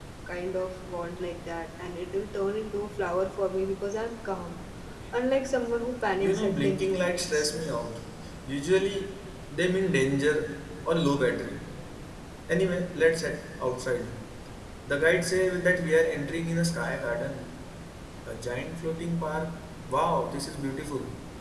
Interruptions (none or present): present